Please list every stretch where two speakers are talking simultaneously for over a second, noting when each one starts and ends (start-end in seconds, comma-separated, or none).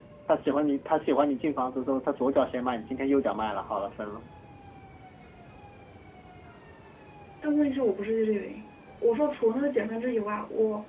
none